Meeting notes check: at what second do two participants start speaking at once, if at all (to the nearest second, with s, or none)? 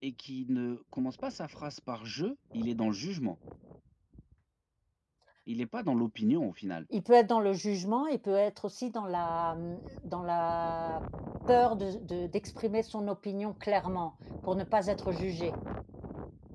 none